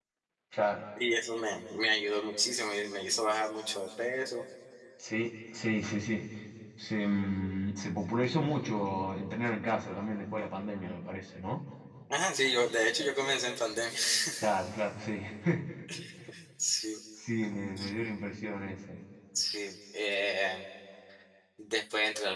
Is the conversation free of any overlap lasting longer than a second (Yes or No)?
Yes